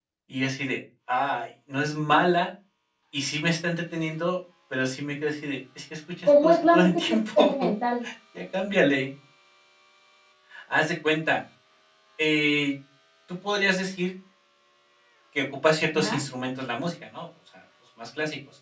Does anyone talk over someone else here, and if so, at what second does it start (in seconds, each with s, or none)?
6.3 s